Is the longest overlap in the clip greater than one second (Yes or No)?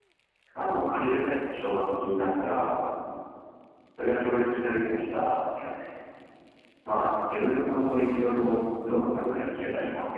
No